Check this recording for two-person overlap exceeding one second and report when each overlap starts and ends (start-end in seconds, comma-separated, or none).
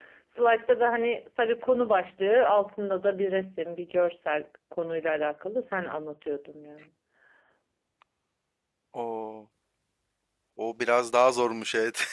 none